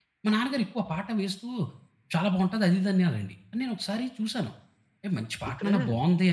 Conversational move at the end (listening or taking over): listening